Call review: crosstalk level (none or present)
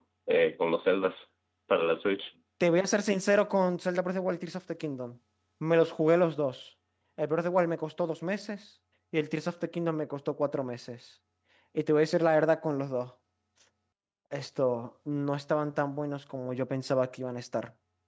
none